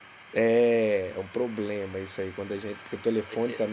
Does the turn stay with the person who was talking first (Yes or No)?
Yes